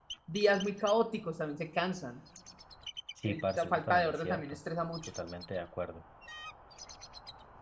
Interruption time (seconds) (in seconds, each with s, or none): 3.3 s